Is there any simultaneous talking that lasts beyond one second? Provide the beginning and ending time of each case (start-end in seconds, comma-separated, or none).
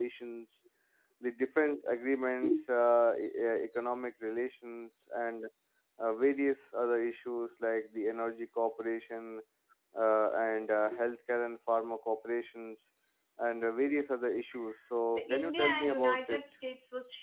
15.1-16.4